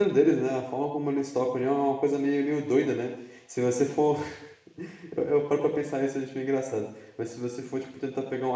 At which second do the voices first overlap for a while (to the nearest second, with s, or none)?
none